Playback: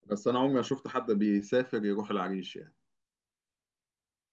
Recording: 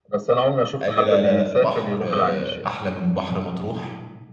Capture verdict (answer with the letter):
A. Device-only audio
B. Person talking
B